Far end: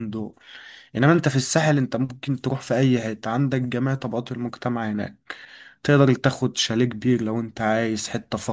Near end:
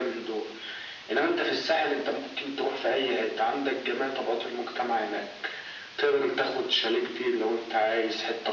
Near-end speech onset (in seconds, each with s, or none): none